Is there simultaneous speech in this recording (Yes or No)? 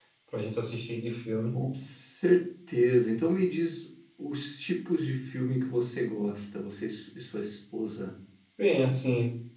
No